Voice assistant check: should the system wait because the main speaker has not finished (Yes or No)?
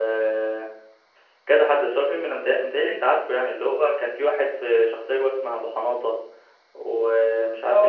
No